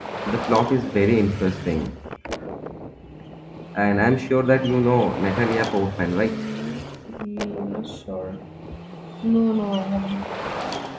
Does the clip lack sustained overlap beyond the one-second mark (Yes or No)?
Yes